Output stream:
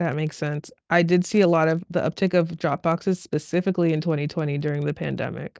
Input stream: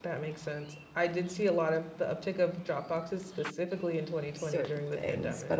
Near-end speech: present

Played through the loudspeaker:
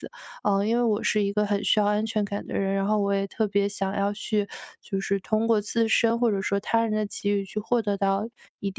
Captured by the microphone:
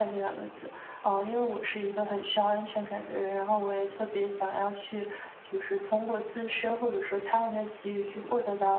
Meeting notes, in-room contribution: none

